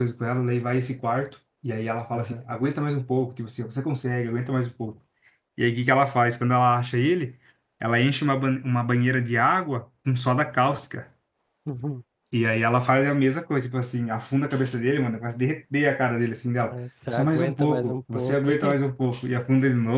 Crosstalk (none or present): present